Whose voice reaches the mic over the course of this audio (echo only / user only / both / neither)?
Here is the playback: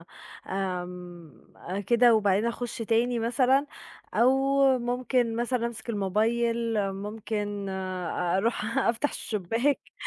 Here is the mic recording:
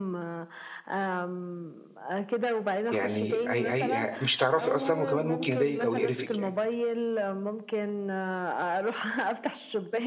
both